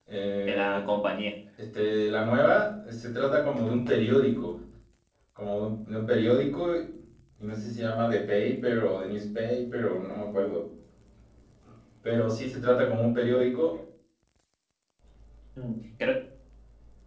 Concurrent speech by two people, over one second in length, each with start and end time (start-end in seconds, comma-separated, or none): none